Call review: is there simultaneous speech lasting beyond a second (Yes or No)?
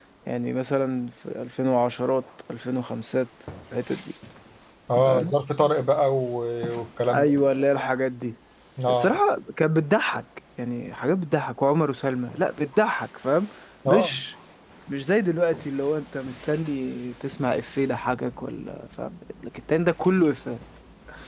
No